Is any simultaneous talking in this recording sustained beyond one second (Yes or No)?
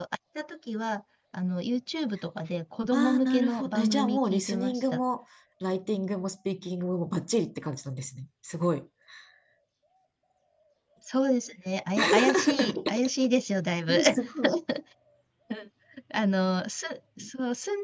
Yes